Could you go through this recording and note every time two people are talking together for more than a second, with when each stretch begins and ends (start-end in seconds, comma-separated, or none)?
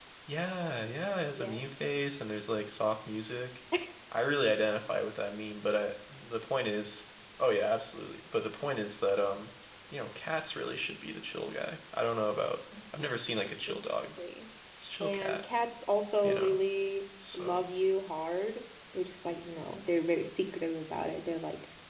none